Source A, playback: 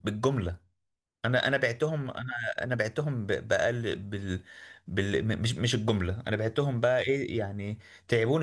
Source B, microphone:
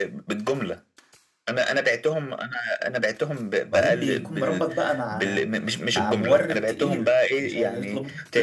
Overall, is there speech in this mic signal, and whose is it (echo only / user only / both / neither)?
both